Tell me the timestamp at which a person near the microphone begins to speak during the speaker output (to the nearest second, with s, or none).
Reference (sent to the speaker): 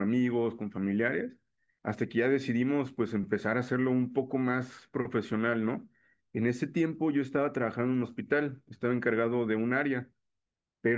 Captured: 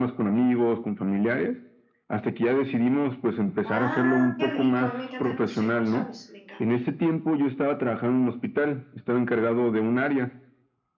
4 s